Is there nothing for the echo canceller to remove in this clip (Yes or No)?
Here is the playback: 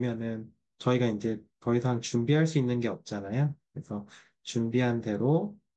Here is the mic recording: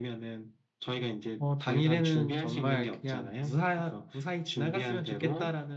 No